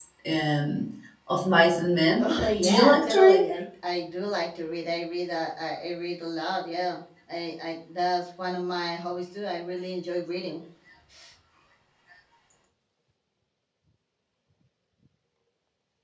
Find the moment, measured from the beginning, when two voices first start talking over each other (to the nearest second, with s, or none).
2 s